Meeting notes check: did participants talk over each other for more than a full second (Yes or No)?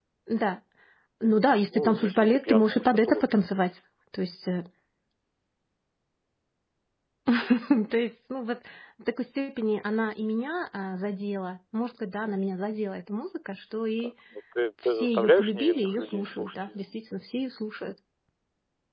Yes